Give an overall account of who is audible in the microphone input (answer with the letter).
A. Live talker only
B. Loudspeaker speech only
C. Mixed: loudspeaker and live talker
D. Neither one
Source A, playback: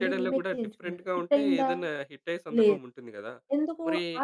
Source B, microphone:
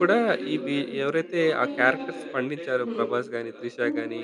C